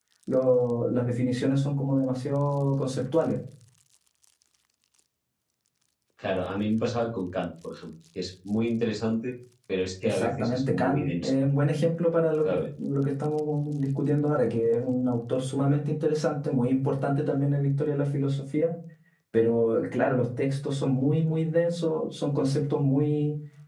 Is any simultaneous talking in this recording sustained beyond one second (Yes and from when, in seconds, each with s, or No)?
Yes, from 10.0 s